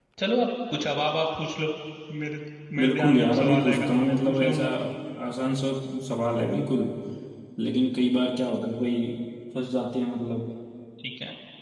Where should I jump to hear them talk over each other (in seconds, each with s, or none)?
2.8 s